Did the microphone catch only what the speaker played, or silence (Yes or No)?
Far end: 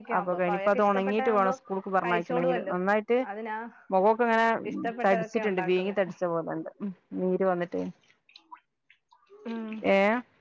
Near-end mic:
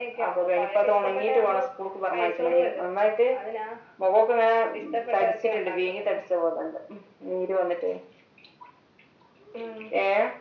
Yes